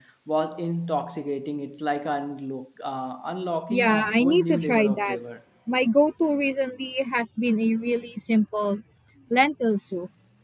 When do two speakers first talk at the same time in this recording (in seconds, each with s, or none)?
3.7 s